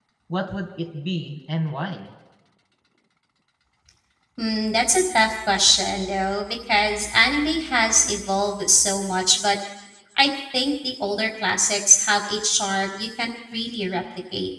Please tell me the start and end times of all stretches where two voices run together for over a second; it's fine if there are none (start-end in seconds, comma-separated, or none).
none